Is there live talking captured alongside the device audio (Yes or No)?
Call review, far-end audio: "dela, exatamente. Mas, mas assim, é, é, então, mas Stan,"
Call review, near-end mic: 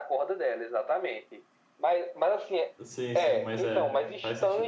Yes